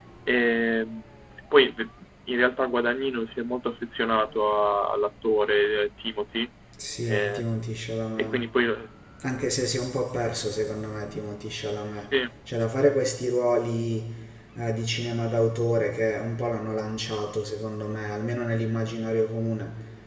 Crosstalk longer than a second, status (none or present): none